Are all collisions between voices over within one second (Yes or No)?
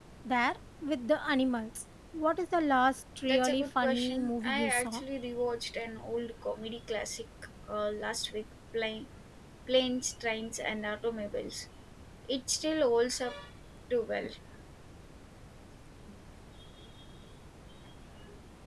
No